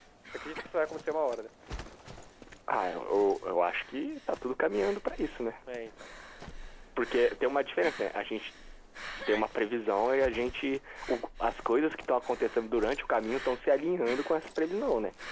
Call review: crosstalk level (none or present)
none